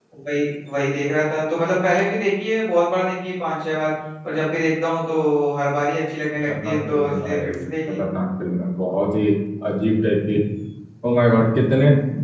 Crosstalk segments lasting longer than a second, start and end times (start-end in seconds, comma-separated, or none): 6.5-8.0